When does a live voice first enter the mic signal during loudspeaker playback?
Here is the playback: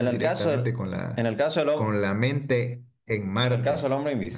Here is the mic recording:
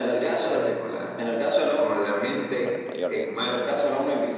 2.6 s

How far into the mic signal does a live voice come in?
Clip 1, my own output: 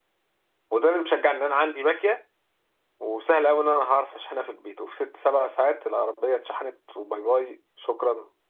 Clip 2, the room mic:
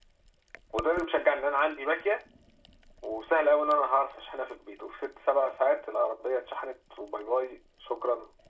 none

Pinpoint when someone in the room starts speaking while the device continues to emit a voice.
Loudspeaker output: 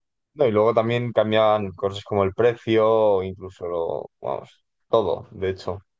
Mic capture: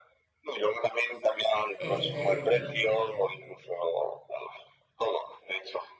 1.8 s

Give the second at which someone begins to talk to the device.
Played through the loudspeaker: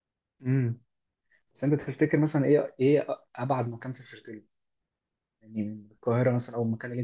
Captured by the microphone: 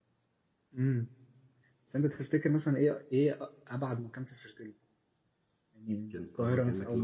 6.1 s

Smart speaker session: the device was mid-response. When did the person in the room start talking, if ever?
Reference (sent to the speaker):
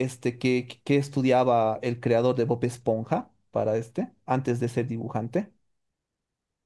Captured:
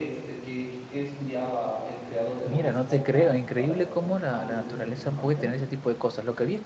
2.4 s

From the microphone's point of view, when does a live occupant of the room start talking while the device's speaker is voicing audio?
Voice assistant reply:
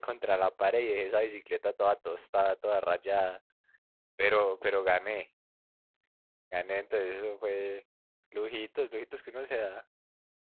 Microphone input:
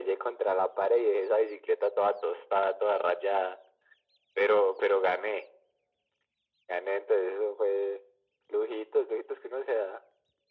none

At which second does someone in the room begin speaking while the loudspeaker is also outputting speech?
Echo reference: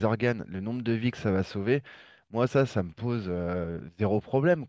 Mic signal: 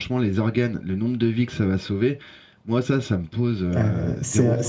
3.8 s

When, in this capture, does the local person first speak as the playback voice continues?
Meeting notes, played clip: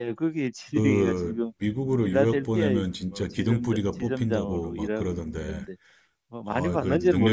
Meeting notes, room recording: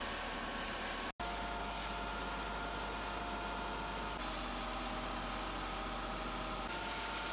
none

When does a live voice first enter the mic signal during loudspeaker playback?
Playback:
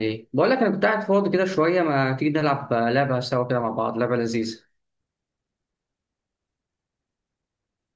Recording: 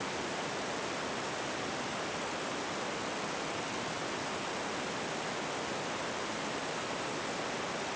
none

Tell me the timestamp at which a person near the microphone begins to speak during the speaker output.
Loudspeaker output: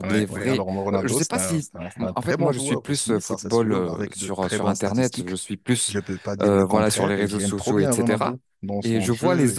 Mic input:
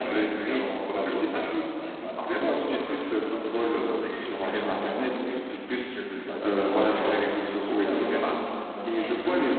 2.3 s

